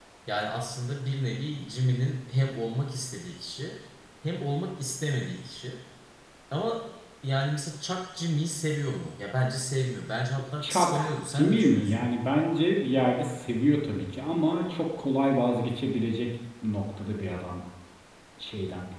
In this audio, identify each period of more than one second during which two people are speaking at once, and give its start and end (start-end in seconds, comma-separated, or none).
10.6-12.1